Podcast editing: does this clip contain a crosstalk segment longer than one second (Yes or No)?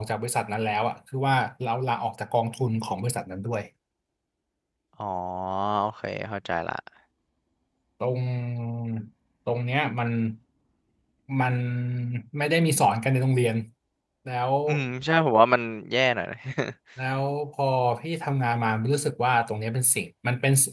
No